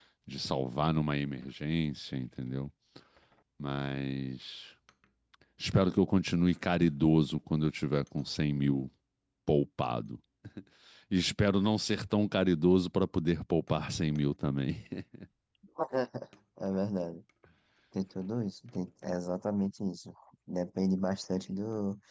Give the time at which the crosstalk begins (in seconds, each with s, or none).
none